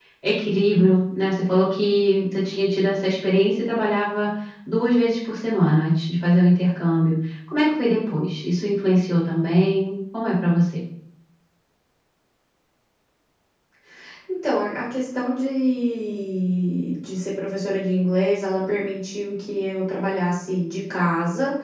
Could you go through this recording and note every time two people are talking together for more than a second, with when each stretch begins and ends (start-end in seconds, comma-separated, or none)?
none